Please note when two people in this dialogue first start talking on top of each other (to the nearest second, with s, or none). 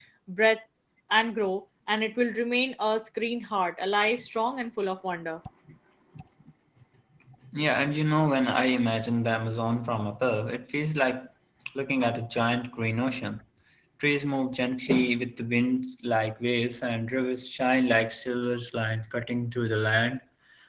none